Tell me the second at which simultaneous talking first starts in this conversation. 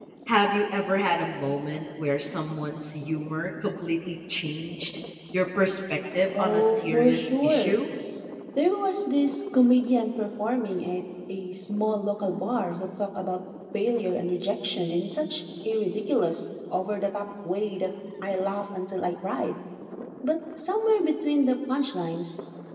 6.3 s

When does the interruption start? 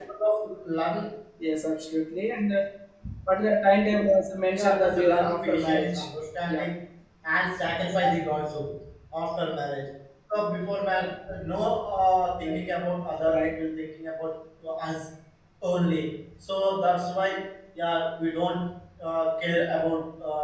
4.5 s

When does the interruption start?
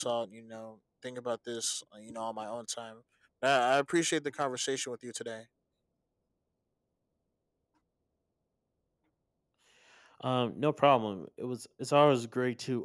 none

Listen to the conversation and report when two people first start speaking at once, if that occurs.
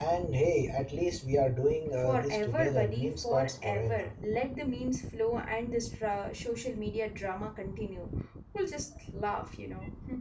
2.0 s

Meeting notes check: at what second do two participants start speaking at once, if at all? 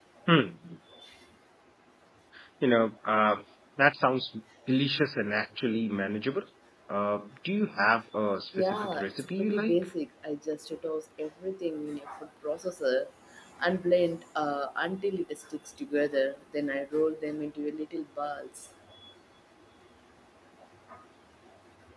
8.5 s

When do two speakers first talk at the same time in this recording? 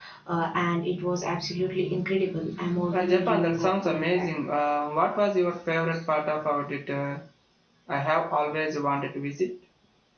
2.9 s

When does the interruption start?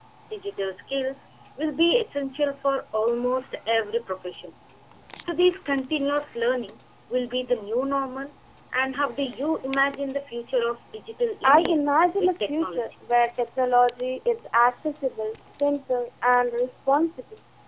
11.4 s

